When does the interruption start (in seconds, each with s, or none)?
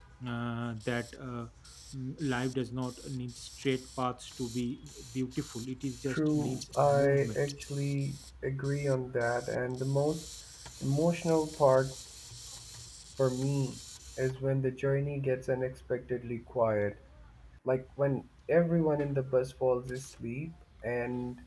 6.1 s